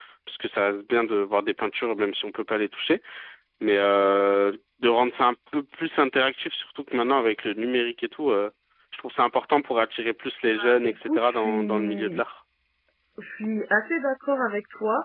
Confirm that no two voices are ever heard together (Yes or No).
No